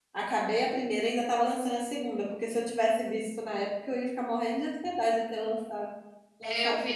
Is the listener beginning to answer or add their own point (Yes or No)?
Yes